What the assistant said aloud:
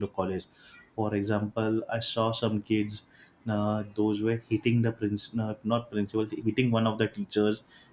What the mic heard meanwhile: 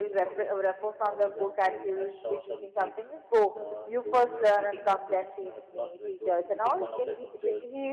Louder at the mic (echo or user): user